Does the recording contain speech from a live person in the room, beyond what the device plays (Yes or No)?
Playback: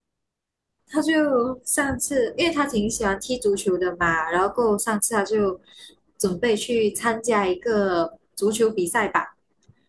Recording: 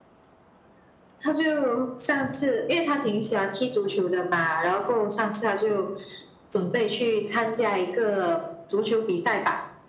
No